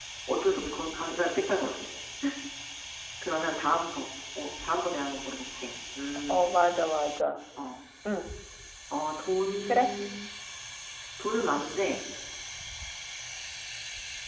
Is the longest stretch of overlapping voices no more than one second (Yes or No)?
Yes